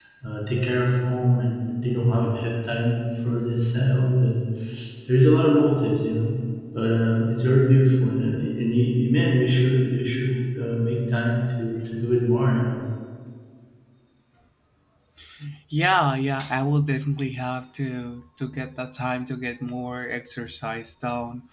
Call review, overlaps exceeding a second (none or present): none